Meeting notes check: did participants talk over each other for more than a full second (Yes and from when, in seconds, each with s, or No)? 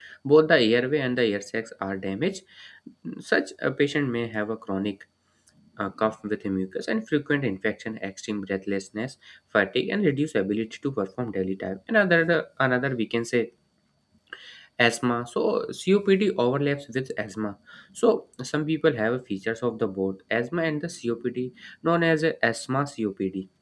No